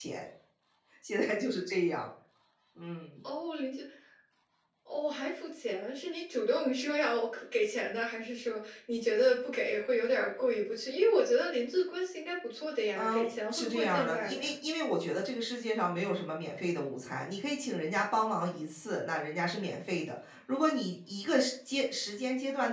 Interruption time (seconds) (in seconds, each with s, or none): 12.9 s